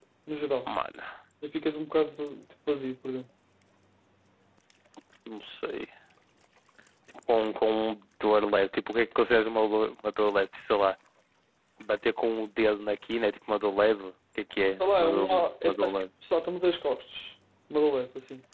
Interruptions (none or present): present